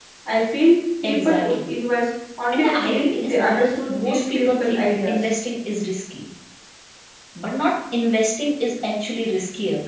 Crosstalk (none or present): present